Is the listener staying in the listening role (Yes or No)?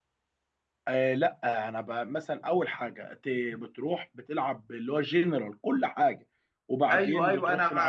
No